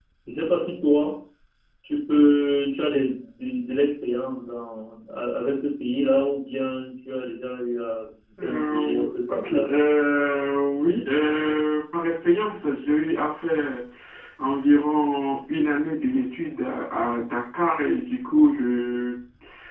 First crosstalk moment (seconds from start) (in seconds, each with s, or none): 8.4 s